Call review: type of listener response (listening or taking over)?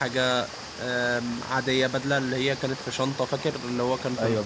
taking over